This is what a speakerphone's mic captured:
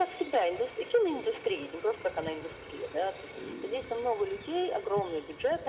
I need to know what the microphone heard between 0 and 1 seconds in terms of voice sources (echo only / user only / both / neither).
echo only